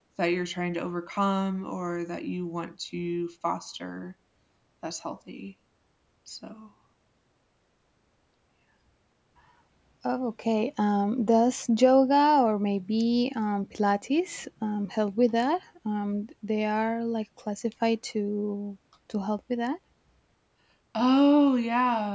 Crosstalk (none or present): none